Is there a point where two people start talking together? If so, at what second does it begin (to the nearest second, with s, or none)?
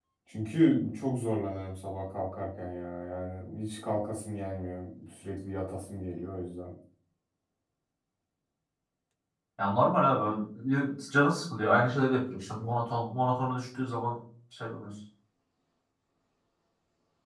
none